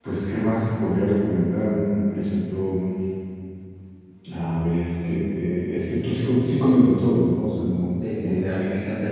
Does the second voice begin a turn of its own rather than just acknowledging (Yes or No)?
Yes